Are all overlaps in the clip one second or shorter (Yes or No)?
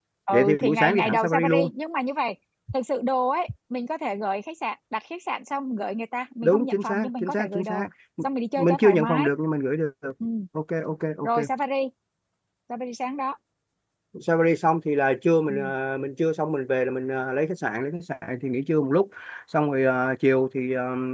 No